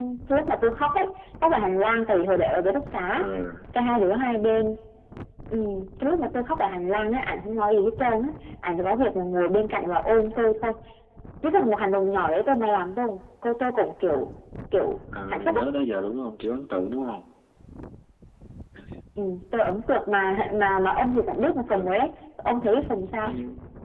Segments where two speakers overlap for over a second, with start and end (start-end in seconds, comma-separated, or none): none